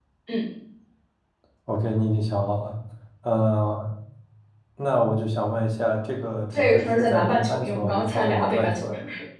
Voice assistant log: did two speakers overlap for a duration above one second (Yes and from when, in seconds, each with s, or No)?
Yes, from 6.5 s